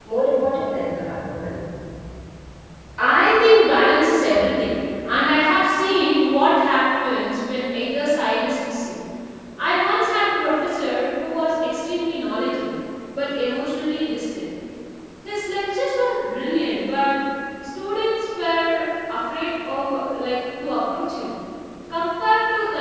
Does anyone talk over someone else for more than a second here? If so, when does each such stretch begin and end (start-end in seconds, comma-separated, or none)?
none